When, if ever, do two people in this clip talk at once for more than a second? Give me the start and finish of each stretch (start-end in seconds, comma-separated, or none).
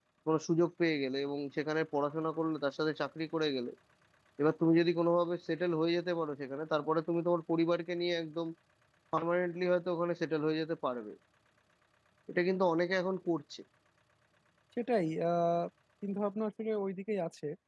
none